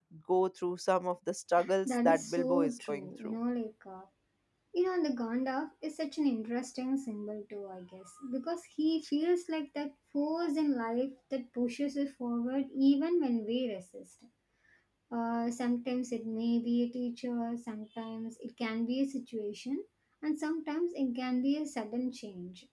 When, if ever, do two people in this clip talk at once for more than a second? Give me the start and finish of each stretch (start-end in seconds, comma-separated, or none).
1.9-3.3